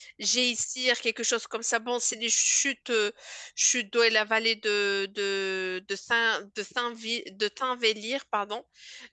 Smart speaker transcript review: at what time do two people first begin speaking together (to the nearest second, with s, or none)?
none